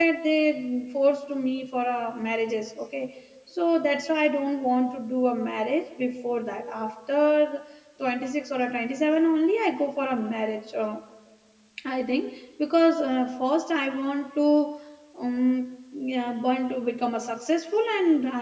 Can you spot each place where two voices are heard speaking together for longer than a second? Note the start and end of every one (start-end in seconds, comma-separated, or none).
none